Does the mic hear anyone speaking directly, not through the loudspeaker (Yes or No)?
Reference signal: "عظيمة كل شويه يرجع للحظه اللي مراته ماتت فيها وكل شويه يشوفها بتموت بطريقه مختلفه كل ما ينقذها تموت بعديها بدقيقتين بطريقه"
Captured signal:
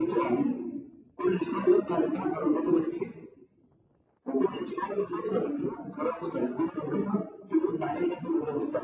No